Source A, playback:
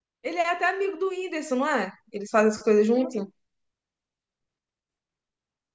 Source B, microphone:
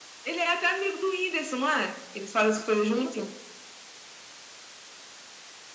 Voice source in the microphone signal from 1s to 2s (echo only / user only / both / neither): echo only